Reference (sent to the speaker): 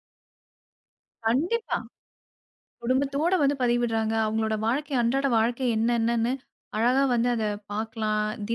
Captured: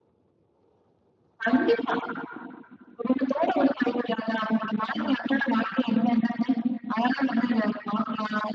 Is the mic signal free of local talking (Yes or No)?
Yes